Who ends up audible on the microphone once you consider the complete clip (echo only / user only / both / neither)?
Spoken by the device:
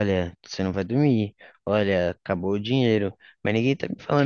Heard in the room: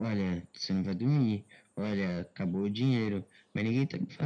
echo only